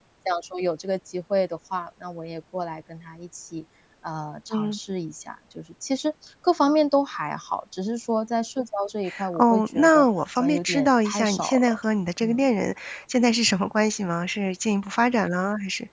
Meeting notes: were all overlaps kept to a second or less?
No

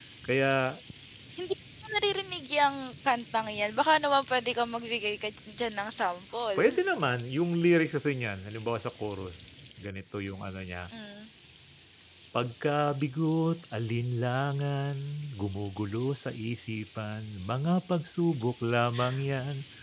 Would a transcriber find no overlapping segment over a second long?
Yes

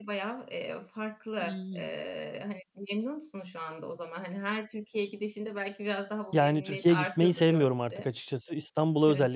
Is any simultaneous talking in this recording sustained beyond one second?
Yes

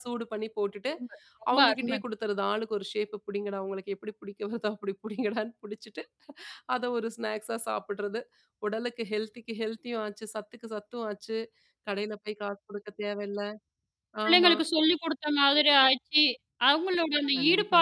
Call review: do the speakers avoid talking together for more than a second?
Yes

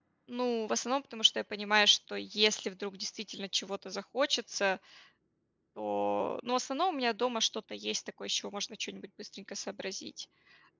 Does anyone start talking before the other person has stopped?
No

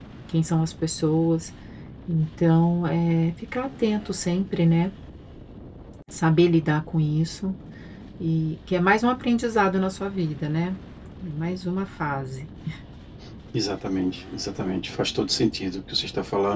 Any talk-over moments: No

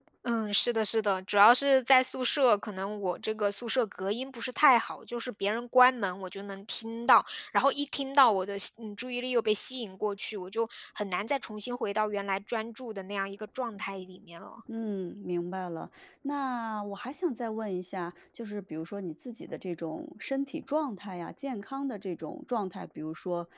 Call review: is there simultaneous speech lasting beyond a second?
No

